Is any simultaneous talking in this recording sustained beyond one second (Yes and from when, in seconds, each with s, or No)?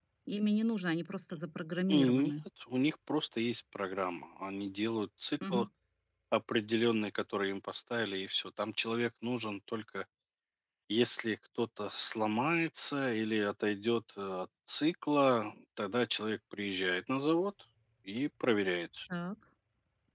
No